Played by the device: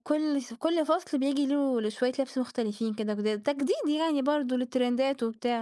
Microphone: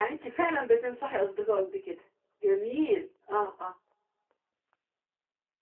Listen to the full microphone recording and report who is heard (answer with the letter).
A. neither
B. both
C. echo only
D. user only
D